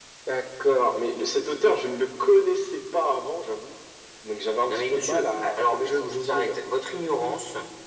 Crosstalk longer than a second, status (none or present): present